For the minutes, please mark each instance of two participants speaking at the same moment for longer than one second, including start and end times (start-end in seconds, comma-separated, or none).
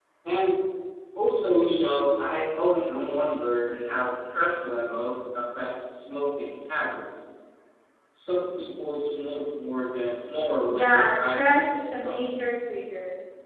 10.7-12.2